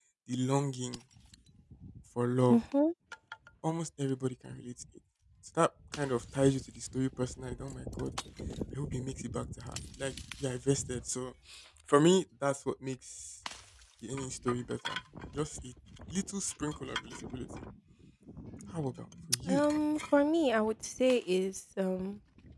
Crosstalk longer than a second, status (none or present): none